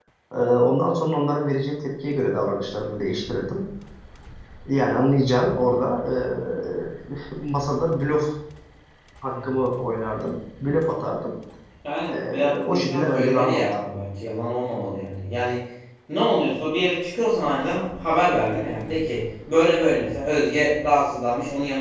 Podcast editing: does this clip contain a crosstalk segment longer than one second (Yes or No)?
Yes